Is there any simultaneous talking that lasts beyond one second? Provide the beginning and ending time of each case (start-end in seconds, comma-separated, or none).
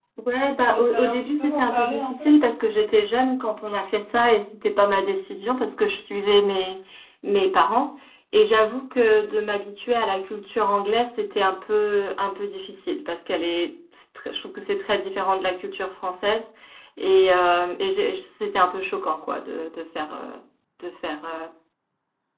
0.7-2.3